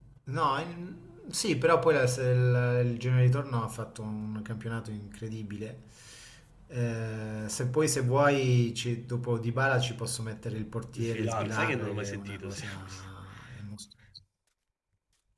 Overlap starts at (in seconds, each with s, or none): 10.9 s